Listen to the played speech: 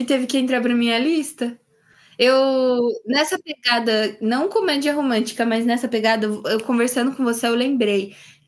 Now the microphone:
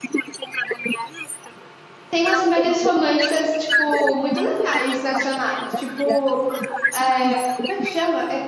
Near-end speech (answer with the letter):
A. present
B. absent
A